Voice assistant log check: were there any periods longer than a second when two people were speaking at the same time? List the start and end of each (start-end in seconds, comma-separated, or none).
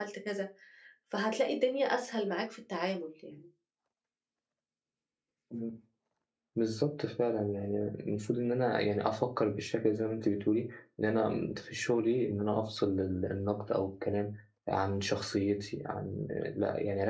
none